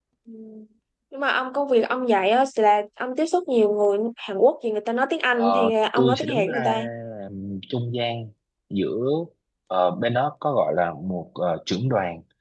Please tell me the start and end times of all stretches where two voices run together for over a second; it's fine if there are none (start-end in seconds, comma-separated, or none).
5.4-6.8